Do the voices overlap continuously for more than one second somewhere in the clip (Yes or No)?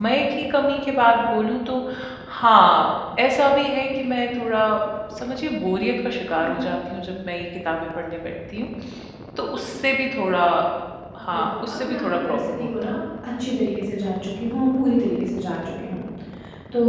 Yes